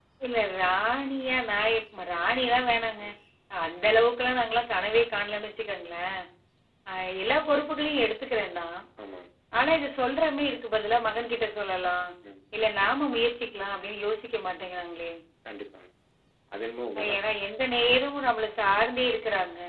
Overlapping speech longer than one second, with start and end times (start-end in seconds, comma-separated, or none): none